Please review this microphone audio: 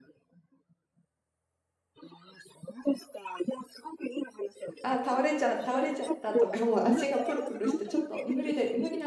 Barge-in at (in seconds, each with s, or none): 4.8 s